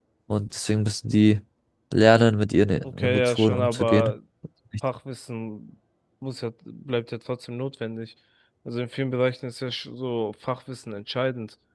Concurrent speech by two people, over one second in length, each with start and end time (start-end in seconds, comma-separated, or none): 2.8-4.1